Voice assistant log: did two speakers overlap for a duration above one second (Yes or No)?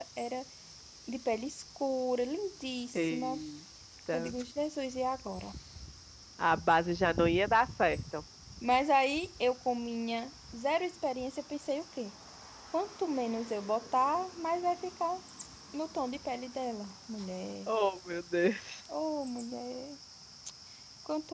No